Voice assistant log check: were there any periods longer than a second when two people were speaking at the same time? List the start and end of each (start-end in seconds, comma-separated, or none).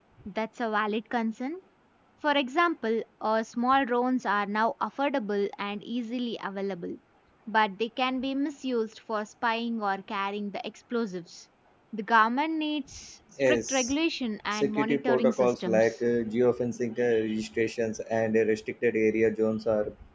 14.5-15.9